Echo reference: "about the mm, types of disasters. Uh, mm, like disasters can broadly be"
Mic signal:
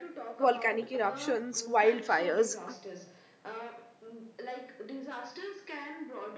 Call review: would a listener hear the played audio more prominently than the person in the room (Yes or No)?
No